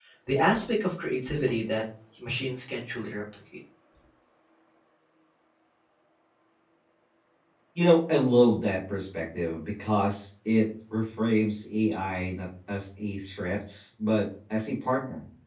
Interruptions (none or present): none